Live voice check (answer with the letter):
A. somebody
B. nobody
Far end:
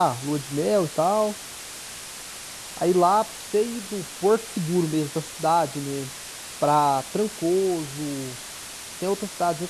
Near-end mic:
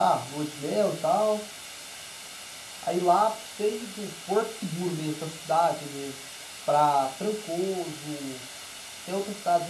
B